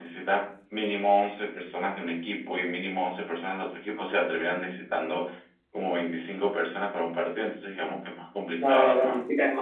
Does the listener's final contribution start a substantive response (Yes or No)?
Yes